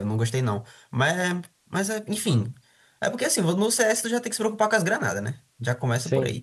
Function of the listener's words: listening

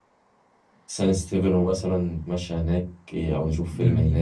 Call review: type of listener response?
taking over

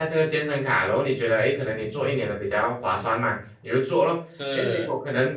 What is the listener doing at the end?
listening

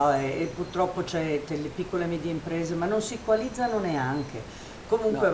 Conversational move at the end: listening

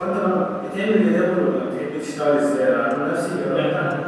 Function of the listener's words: listening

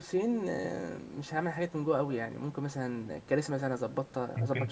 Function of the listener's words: taking over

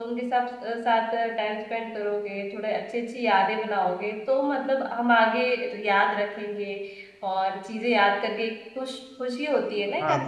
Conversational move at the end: taking over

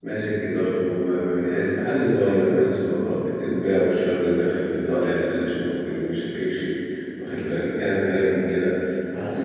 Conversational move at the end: listening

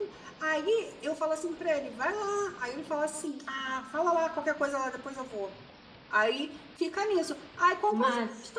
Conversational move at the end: listening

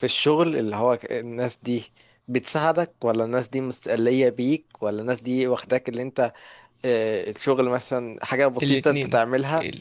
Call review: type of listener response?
taking over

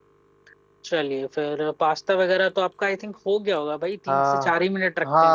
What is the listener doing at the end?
taking over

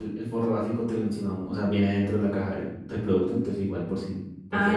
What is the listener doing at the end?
taking over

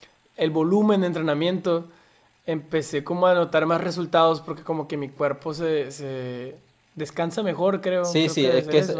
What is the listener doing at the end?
taking over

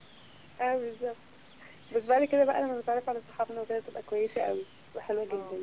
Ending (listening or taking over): taking over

